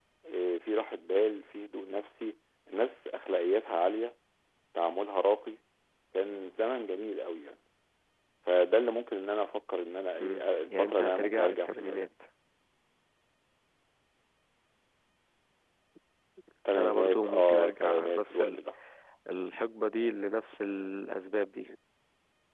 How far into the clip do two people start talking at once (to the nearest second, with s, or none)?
10 s